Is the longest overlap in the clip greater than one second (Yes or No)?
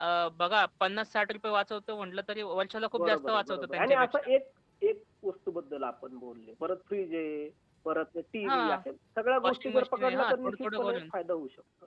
Yes